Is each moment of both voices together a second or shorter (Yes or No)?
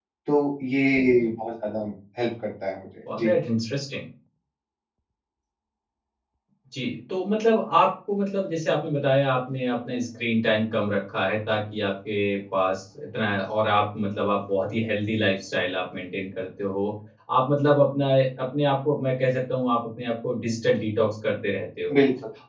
Yes